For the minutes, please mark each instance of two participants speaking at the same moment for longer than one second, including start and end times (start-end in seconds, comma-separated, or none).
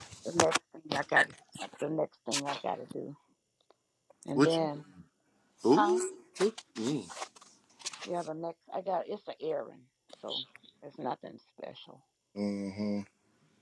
none